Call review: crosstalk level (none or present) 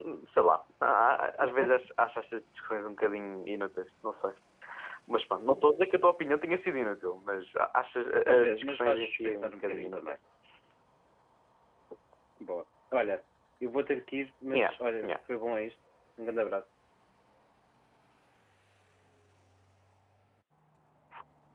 present